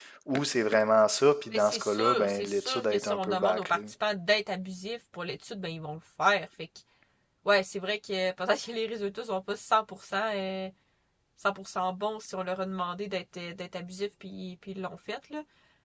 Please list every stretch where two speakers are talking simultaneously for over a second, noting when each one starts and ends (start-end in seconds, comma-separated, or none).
1.5-3.8